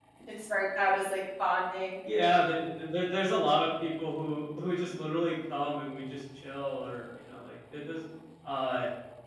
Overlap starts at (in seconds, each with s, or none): none